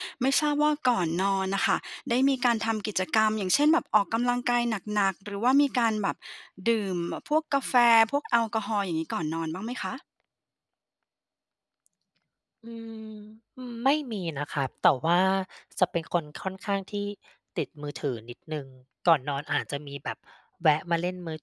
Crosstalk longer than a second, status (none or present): none